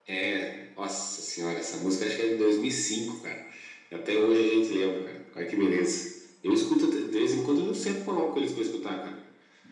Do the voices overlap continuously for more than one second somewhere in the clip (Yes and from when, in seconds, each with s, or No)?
No